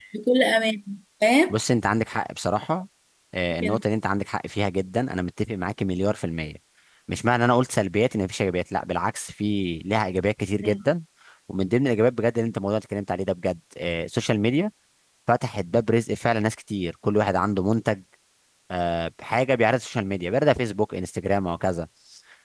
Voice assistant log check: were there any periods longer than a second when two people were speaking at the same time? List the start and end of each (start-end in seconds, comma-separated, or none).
none